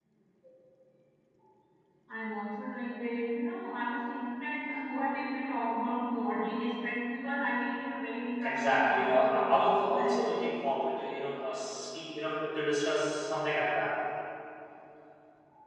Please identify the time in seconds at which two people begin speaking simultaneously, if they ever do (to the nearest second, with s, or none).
8 s